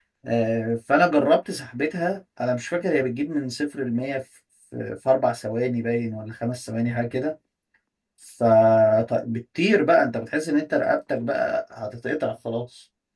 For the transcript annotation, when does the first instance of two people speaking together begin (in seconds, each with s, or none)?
none